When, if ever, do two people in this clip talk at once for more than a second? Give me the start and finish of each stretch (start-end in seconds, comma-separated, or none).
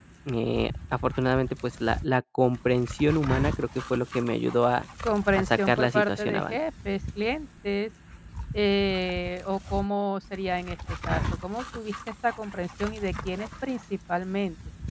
5.3-6.6